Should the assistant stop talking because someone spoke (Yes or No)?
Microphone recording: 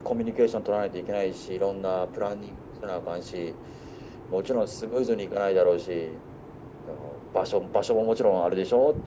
No